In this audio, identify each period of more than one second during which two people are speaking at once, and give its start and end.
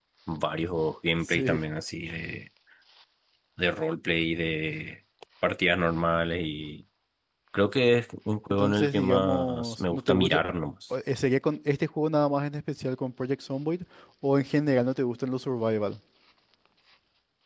8.5-10.4

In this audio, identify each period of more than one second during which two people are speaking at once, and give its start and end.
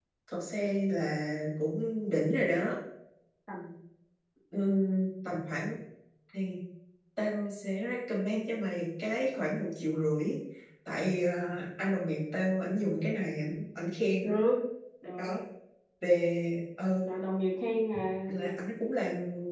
none

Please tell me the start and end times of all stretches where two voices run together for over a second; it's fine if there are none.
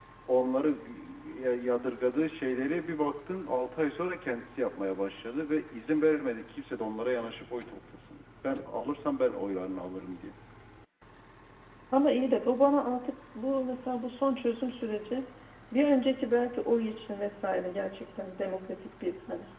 none

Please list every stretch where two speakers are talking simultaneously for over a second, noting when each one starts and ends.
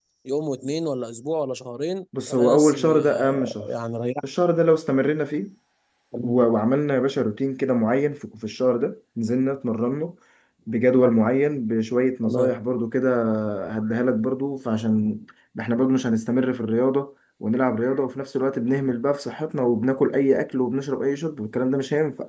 2.3-3.7

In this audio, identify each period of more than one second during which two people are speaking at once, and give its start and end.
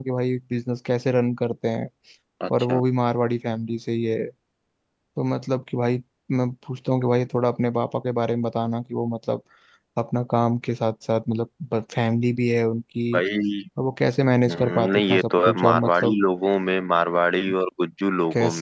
14.5-16.1

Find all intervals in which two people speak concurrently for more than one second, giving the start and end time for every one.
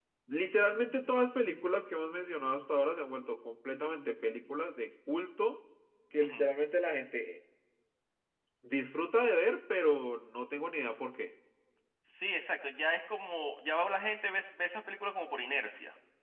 none

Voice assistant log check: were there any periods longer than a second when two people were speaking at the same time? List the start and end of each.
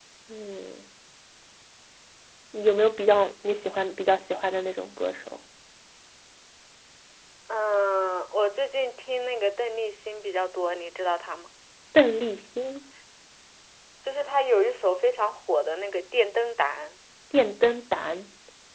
none

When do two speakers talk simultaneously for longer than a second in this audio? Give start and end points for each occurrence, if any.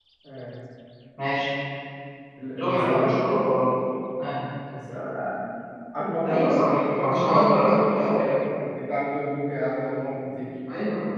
6.2-8.3

